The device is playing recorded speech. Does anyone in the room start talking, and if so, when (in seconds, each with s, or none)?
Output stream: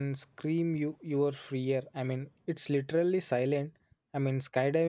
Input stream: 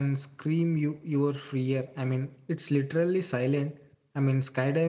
none